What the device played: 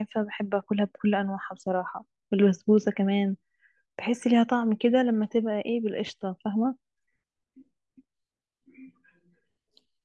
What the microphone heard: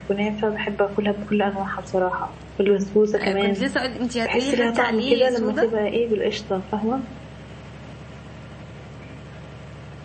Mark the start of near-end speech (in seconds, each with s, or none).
3.2 s